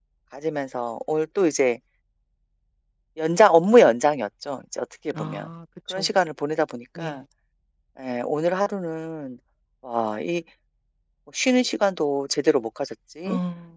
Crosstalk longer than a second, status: none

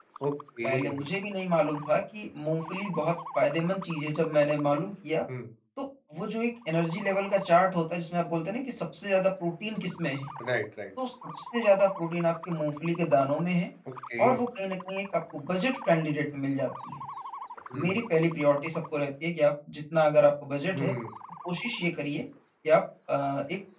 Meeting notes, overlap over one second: none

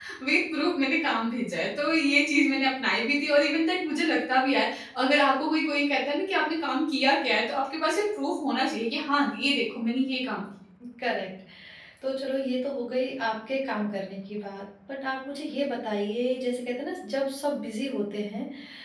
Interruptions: none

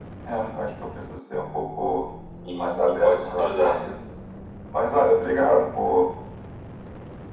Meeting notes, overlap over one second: present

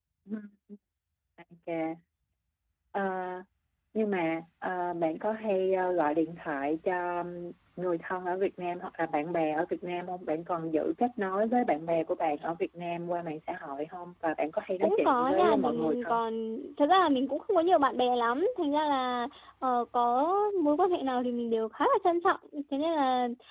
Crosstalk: present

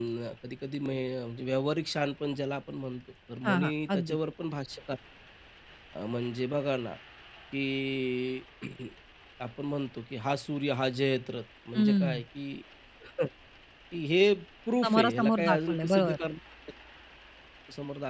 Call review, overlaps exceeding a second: present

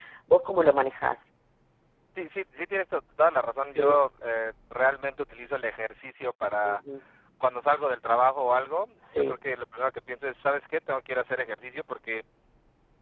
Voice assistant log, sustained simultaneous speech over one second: none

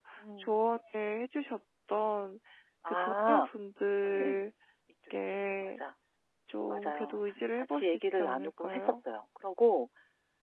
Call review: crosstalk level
present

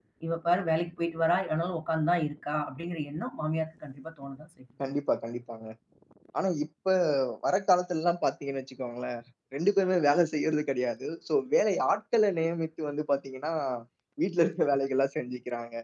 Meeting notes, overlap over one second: none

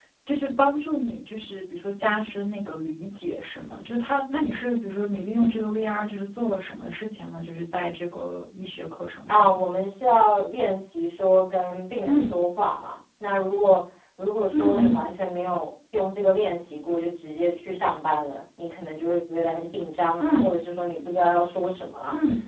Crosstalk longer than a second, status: none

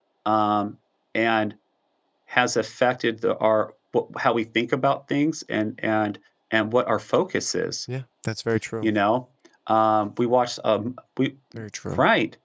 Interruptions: none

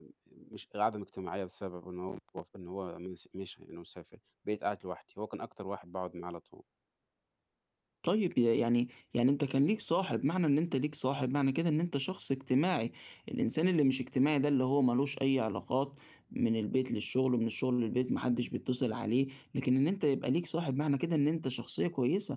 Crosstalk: none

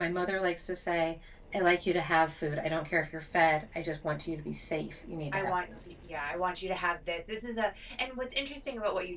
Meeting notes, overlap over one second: none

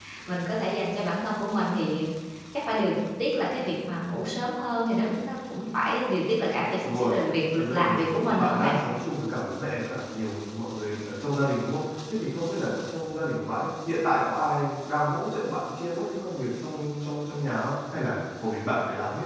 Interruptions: present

